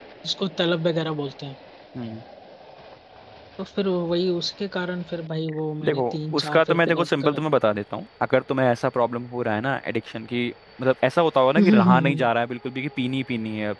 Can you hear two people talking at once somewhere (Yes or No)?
Yes